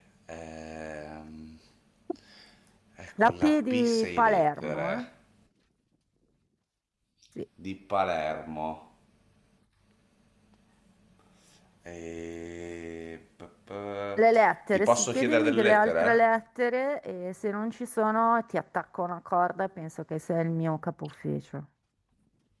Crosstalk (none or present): present